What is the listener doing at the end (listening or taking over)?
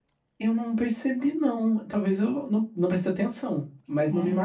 listening